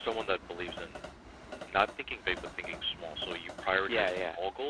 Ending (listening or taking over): listening